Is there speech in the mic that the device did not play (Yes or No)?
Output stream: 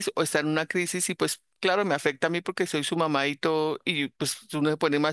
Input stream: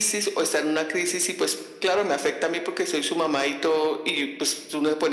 No